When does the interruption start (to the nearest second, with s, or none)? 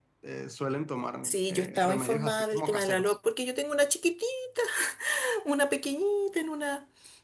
1 s